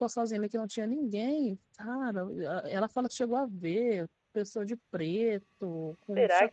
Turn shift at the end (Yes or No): Yes